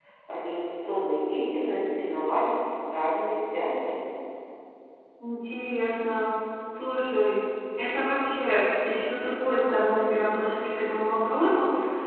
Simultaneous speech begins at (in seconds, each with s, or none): none